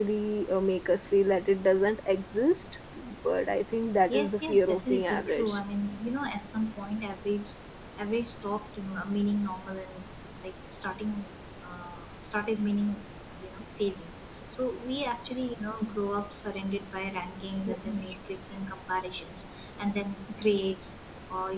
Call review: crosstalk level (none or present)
present